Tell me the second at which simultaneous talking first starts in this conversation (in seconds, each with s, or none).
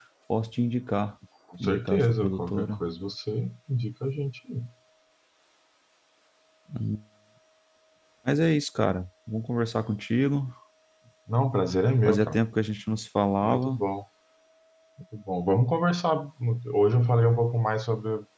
1.6 s